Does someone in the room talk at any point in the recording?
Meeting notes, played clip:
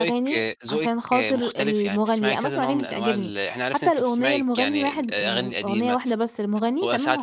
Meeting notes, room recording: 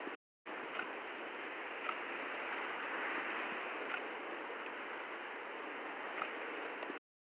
No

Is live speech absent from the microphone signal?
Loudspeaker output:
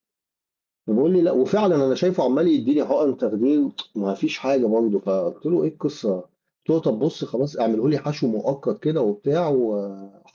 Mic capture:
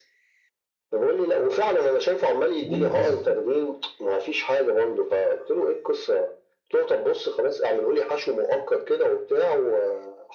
No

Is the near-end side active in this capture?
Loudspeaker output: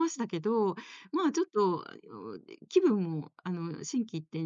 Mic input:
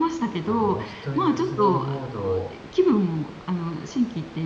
Yes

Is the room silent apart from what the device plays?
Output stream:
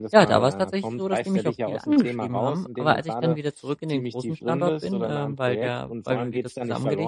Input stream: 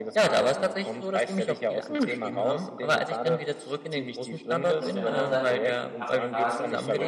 No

